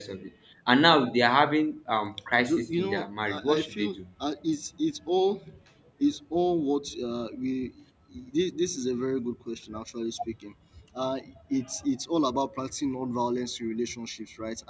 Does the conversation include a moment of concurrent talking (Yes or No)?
Yes